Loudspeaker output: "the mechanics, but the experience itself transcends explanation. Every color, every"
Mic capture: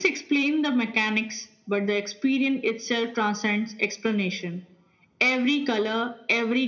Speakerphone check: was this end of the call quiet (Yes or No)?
Yes